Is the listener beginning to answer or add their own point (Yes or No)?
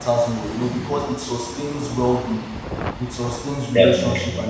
No